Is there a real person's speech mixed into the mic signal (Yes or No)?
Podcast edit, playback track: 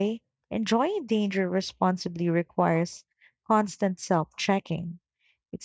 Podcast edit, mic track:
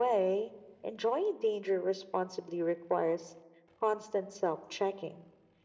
No